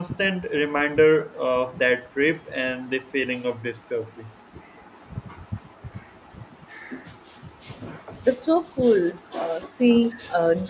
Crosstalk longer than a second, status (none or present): none